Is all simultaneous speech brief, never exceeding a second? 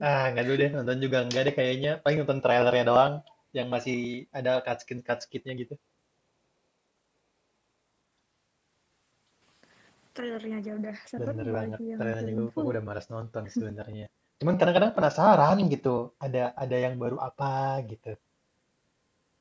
No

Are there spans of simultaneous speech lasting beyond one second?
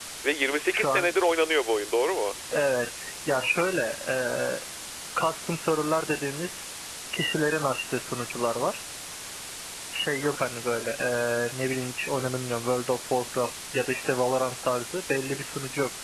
No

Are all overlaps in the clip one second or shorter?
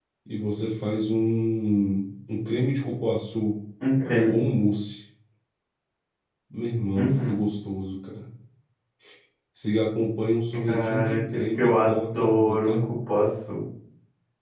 No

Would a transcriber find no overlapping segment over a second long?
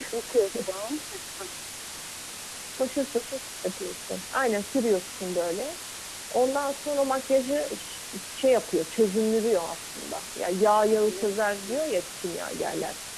Yes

